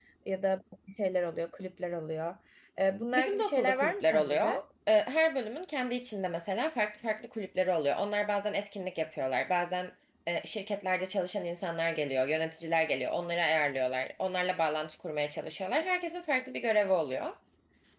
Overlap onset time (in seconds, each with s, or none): 3.1 s